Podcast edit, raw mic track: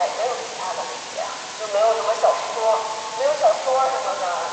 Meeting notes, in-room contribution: none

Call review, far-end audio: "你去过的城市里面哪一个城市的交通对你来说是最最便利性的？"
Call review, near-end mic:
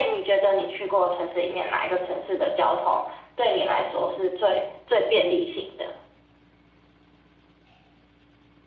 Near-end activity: none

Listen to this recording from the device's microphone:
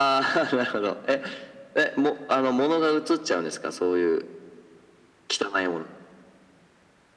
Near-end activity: none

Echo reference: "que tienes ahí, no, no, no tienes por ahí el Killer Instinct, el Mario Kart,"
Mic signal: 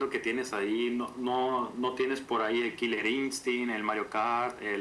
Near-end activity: none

